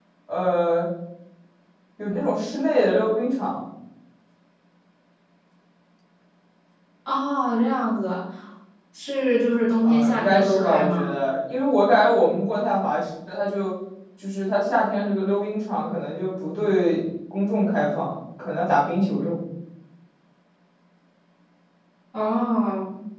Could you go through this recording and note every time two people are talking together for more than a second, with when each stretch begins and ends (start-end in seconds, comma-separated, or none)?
9.8-11.1